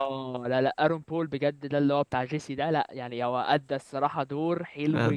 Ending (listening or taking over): listening